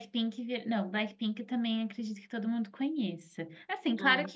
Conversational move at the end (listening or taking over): listening